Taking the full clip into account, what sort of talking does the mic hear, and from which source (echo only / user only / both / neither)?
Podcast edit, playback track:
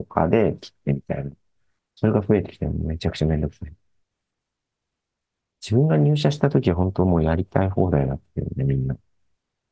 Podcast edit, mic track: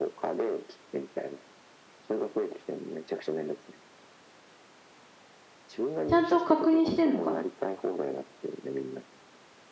both